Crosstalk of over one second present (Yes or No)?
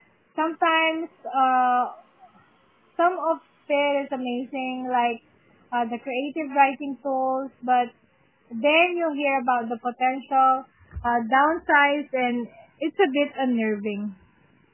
No